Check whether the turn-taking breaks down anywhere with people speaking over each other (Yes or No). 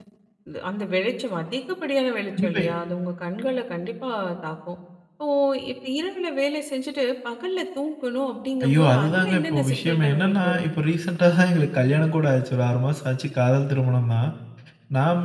Yes